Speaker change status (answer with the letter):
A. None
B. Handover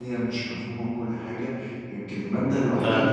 A